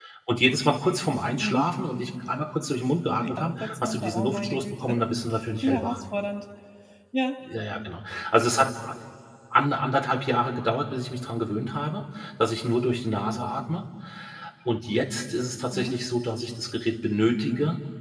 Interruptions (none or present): present